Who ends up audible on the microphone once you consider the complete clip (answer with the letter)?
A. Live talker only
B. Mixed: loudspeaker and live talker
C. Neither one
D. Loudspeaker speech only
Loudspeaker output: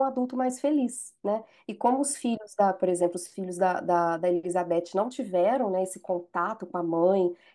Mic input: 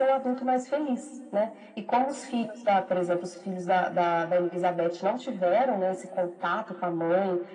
D